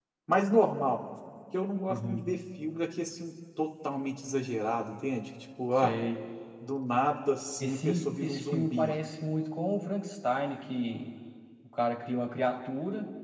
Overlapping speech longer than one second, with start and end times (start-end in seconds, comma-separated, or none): 7.6-9.0